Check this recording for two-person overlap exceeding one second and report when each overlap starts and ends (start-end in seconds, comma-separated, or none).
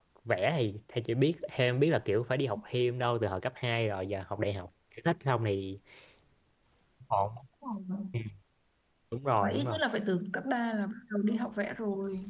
none